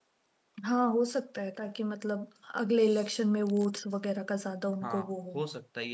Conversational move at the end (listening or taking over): taking over